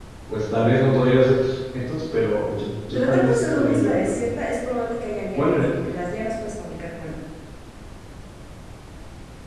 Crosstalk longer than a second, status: present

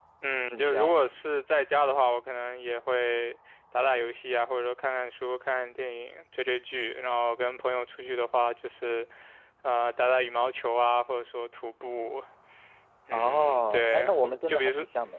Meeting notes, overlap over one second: present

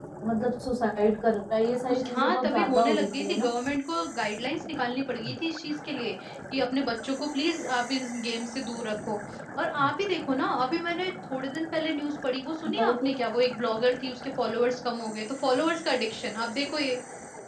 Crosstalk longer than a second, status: present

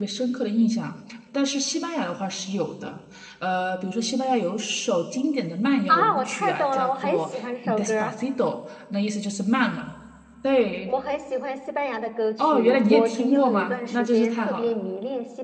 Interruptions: present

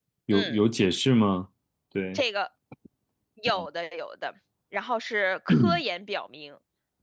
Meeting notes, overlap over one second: none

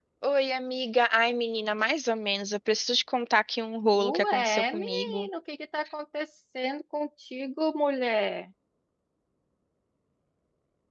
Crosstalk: present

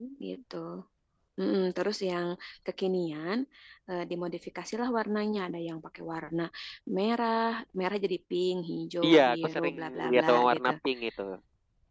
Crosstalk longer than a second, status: present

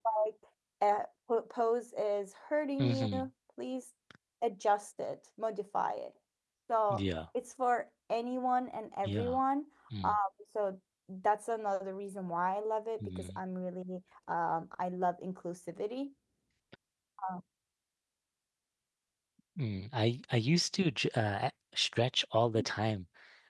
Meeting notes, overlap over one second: none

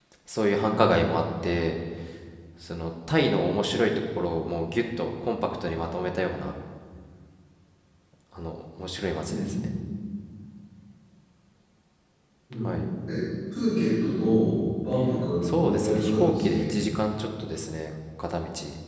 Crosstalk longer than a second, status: present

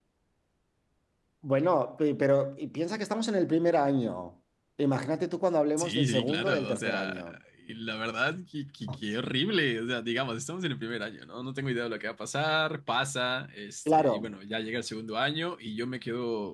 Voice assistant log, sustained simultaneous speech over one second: present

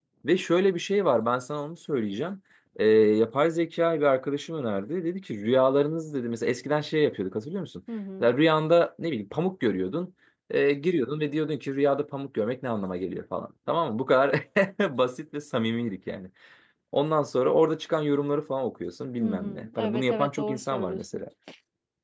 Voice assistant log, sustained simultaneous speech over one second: present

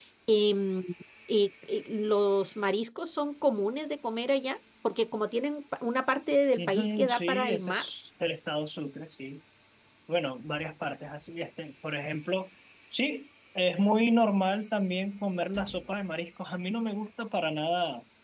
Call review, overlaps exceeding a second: present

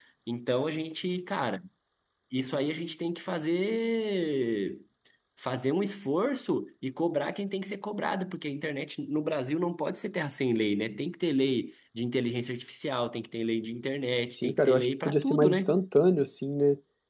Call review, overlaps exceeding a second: present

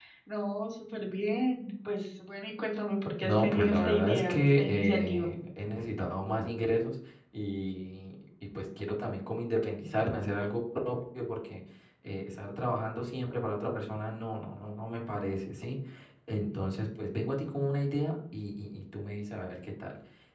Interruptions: present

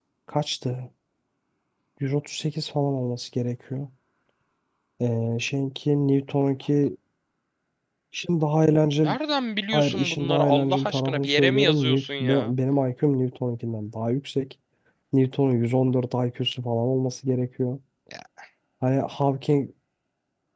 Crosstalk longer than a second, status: present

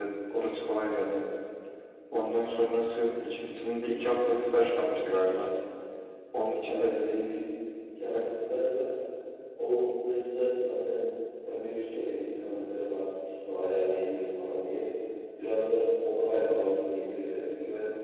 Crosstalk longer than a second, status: none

